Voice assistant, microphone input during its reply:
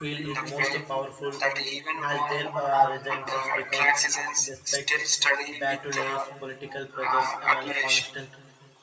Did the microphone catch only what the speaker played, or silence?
No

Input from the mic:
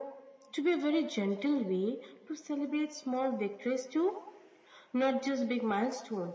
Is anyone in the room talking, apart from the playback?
No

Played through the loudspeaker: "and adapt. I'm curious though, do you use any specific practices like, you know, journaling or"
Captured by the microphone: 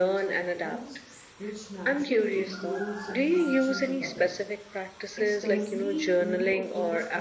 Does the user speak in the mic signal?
Yes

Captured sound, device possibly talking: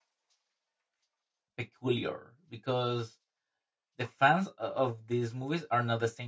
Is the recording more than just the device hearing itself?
Yes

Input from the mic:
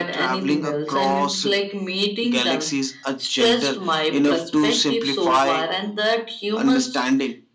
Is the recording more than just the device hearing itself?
No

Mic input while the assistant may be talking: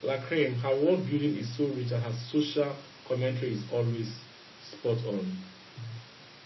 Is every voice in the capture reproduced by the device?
Yes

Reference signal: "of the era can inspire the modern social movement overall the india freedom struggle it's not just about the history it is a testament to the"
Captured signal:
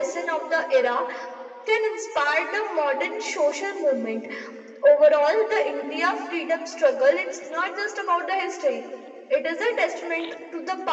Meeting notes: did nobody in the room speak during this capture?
Yes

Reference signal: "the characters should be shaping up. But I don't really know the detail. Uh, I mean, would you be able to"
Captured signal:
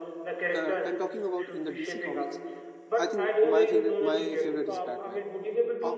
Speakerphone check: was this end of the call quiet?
No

